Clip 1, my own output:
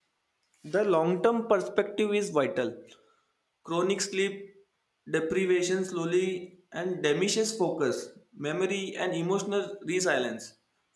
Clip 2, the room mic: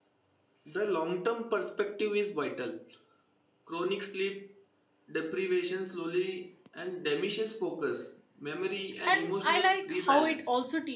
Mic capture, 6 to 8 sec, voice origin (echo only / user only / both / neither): echo only